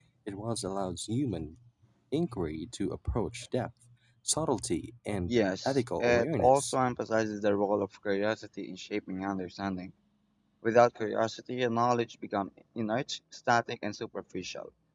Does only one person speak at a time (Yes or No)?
No